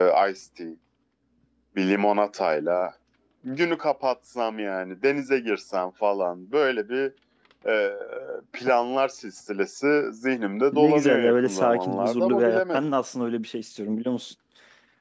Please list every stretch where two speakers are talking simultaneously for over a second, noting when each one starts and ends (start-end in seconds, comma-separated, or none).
10.7-12.9